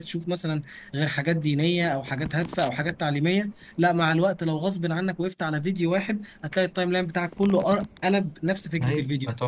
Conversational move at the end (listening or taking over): taking over